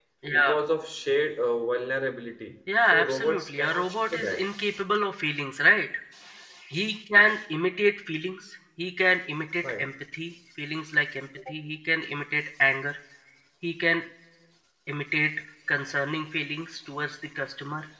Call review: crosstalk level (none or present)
present